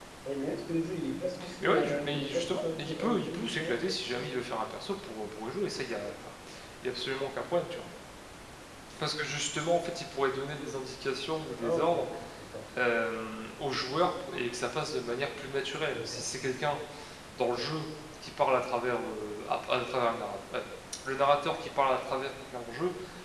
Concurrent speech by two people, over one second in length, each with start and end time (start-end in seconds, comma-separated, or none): 1.6-3.8